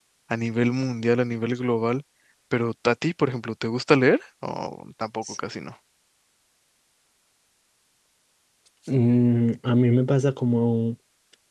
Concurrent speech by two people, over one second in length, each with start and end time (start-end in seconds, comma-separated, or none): none